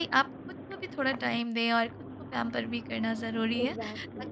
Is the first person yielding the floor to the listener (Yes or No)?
No